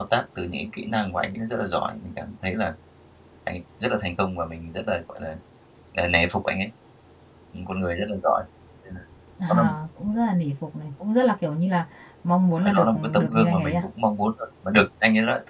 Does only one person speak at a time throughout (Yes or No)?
No